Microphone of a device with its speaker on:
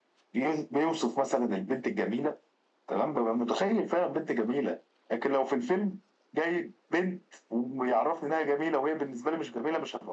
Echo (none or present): present